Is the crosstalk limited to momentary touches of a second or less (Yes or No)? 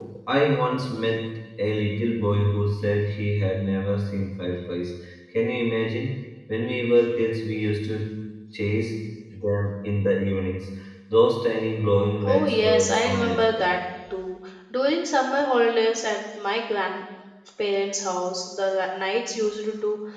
No